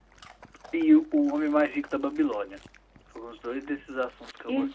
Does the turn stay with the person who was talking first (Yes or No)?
No